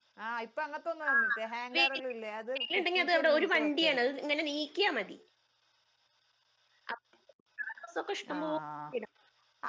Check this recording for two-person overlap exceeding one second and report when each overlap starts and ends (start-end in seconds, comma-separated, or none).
2.8-4.0